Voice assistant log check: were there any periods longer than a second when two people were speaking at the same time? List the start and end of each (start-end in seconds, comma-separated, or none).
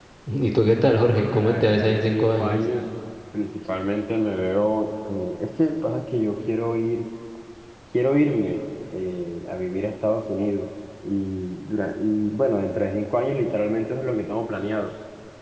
1.1-2.6